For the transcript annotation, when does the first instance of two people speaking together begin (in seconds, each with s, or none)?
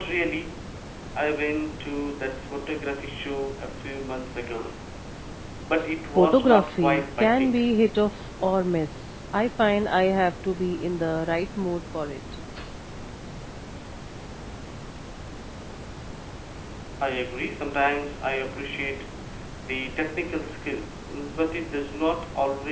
6.2 s